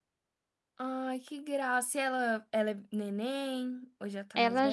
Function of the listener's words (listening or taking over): taking over